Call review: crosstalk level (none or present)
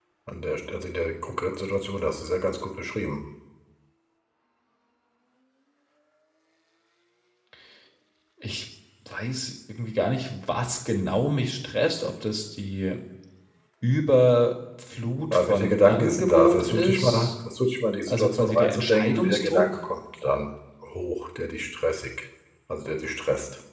present